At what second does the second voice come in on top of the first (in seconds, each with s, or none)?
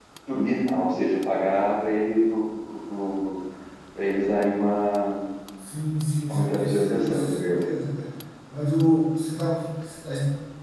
6.3 s